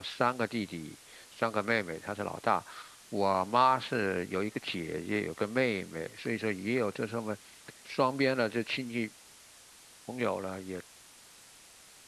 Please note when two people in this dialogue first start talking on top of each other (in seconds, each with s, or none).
none